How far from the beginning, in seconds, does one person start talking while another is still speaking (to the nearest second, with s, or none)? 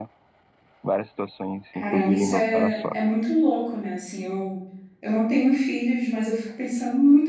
2 s